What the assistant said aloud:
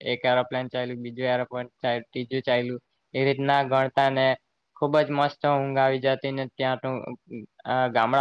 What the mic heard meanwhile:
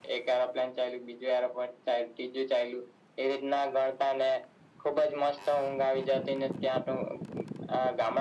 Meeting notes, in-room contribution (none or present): none